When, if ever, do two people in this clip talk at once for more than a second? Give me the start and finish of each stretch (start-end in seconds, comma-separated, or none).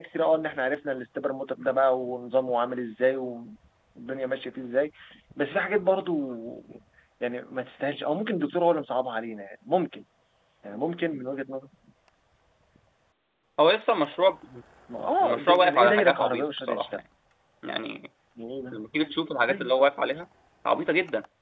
15.2-17.0